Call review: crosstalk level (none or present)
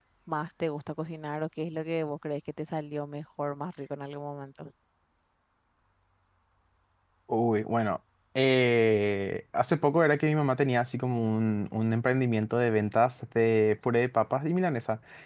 none